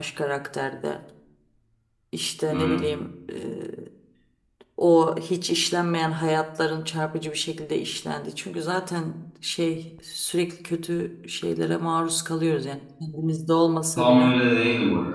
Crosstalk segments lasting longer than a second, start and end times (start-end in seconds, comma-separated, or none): none